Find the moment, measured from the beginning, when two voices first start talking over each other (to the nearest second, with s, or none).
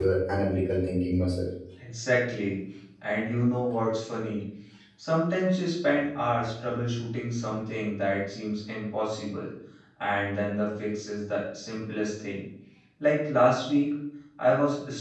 none